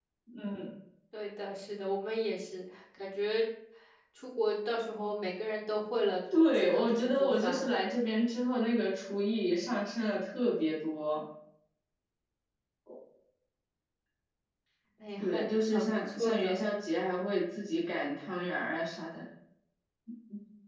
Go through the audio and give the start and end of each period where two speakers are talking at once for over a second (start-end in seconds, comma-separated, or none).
6.5-7.8, 15.2-16.6